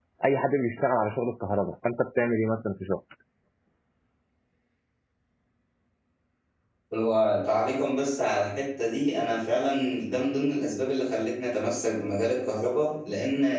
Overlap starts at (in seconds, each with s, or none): none